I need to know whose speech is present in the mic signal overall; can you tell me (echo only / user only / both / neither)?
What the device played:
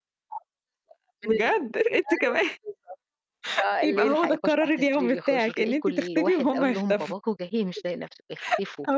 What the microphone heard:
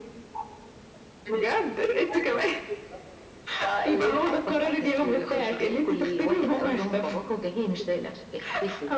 echo only